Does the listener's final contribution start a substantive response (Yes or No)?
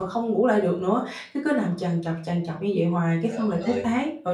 No